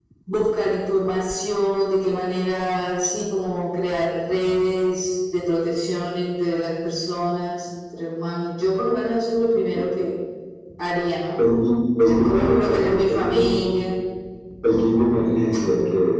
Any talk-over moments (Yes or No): Yes